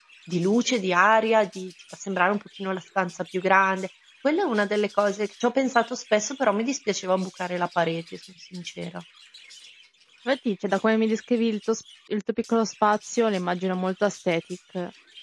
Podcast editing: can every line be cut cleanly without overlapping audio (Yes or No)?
Yes